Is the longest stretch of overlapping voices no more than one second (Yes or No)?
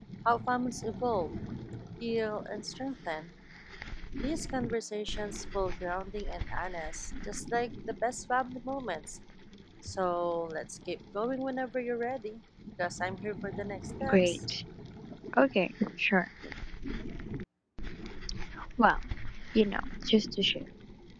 Yes